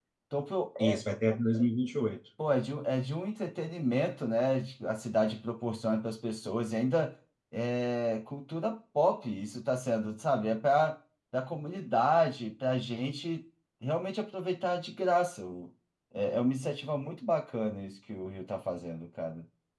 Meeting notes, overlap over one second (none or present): none